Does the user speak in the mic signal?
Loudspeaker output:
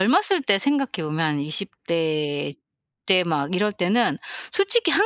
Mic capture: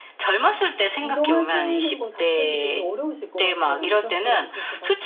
Yes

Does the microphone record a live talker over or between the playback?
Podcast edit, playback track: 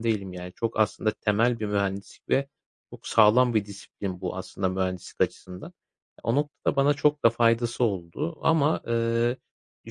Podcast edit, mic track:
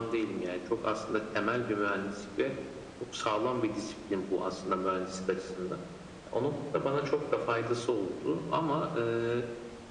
No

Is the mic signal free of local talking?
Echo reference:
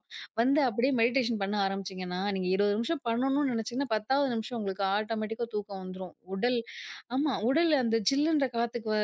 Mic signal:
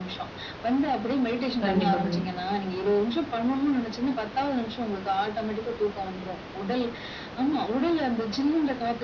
No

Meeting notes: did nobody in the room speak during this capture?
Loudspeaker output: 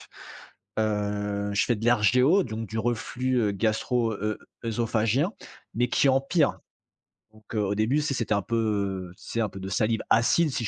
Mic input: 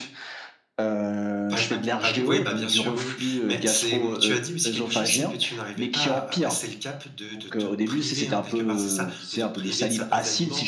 No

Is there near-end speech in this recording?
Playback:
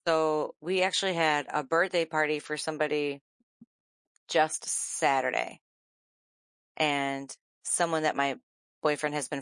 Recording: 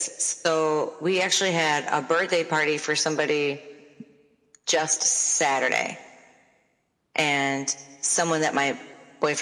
No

